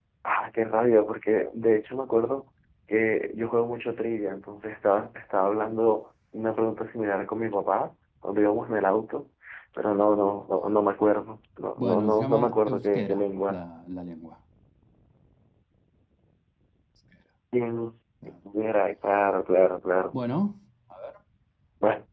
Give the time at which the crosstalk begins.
11.8 s

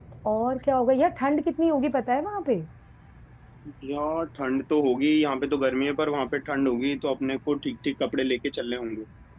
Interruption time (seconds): none

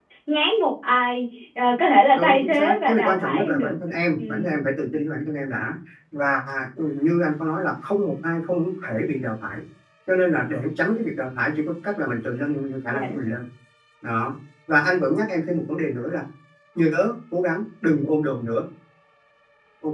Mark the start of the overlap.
2.2 s

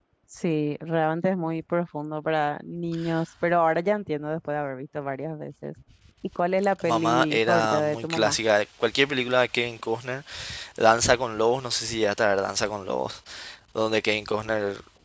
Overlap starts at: 6.8 s

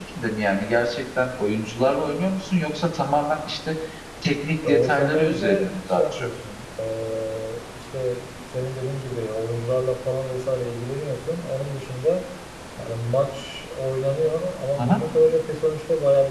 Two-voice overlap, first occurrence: 4.6 s

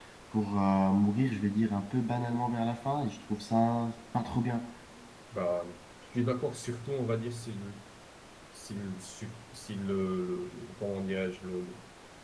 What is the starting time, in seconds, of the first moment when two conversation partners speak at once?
none

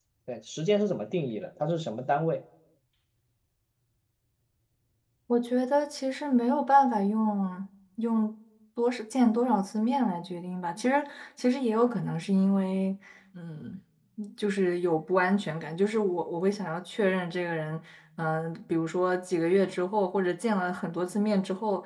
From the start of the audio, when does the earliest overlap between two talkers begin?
none

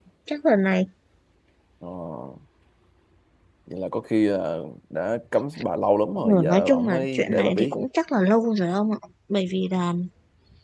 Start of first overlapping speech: 6.2 s

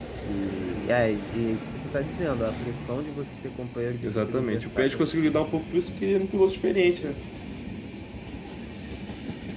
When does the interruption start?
4.0 s

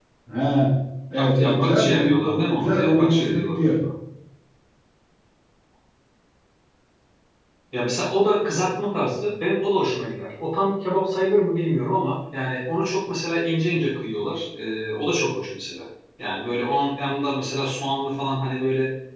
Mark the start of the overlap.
1.1 s

